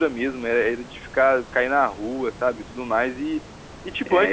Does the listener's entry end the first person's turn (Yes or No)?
No